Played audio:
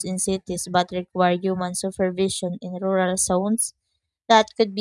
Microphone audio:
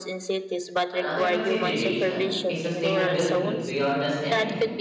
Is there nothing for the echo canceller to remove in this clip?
No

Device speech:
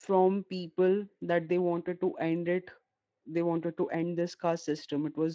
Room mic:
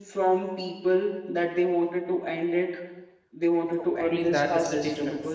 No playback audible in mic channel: No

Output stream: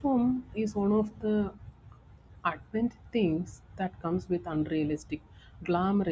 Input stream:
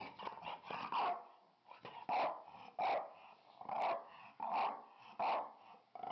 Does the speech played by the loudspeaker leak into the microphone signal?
No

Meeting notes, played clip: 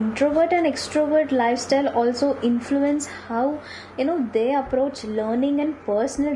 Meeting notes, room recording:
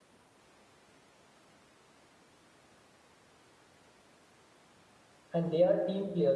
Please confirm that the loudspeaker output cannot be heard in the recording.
Yes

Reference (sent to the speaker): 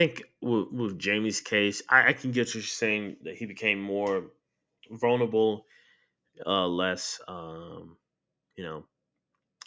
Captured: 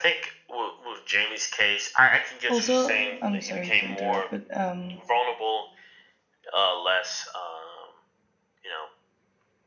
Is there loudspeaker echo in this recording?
Yes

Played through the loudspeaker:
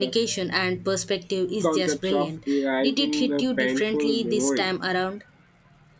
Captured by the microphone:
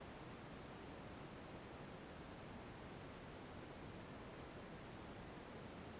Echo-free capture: Yes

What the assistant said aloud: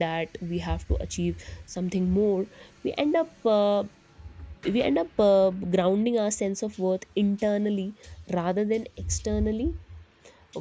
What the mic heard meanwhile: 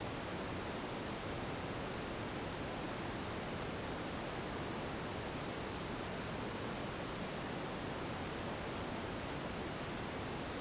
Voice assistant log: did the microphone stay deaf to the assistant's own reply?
Yes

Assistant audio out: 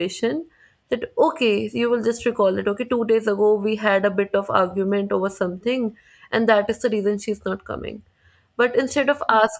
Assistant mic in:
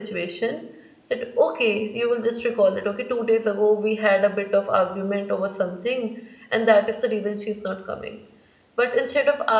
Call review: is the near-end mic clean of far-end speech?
No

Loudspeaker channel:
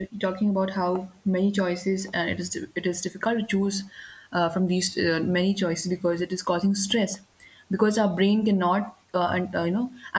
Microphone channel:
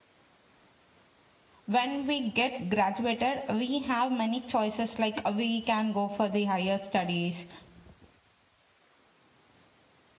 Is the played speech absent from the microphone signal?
Yes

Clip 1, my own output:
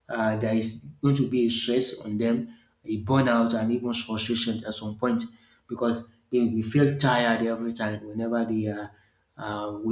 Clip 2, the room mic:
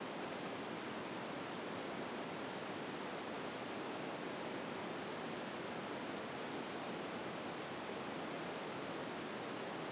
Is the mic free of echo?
Yes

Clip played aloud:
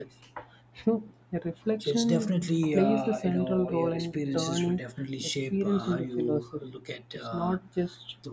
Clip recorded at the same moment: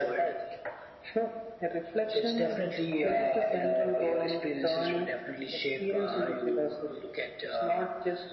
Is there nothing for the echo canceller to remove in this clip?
No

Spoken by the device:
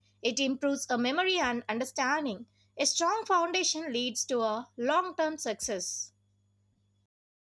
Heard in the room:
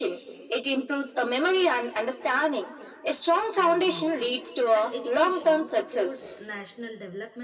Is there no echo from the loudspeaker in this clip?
No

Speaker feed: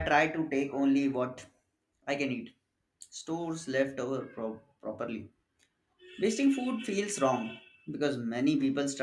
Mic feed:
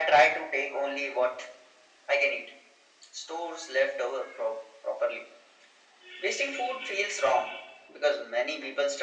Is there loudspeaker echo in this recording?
Yes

